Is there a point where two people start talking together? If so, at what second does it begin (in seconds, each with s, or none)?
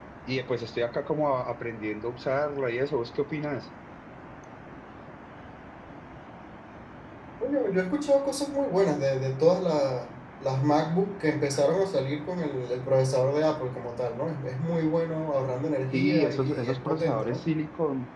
15.9 s